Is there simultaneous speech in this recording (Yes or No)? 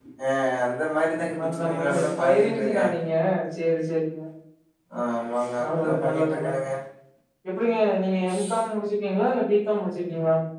Yes